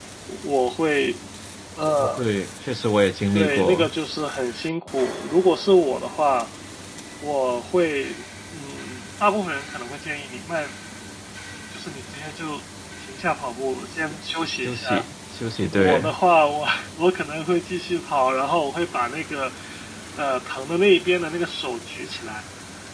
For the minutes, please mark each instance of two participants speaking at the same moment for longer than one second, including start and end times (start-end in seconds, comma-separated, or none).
none